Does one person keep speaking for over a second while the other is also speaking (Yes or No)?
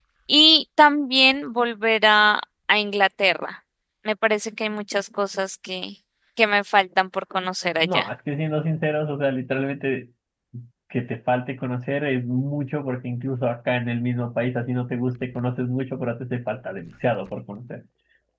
No